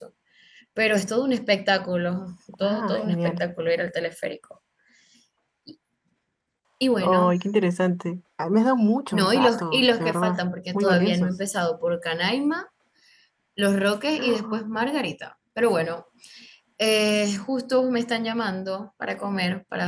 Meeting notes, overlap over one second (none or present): present